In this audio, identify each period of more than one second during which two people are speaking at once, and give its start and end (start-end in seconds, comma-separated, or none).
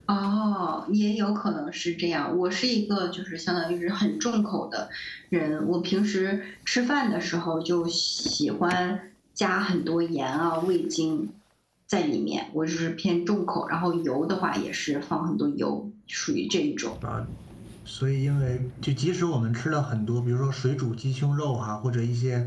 none